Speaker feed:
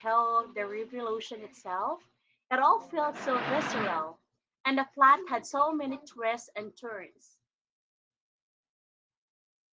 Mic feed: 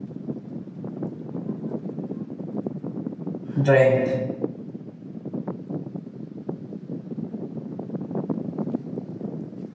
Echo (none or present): none